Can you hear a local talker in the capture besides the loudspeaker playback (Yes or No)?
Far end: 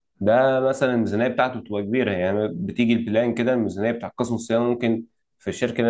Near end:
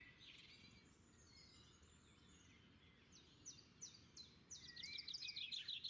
No